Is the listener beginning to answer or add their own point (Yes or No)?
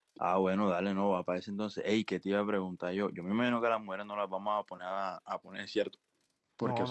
No